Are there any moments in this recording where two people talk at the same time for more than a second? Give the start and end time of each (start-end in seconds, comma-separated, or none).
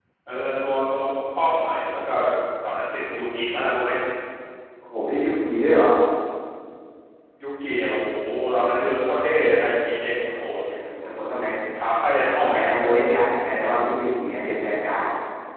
none